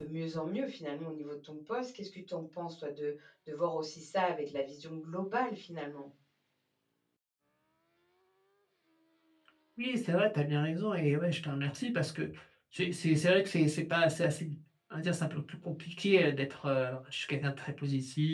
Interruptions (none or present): none